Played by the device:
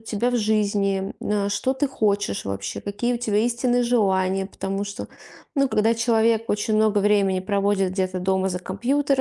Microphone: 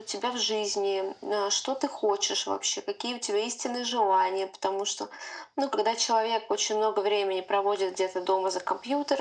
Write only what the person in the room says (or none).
none